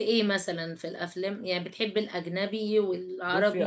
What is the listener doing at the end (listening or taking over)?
taking over